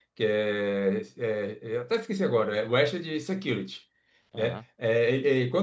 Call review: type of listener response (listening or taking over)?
listening